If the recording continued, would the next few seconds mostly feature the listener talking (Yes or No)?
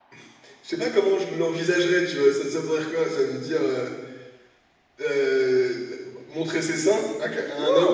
Yes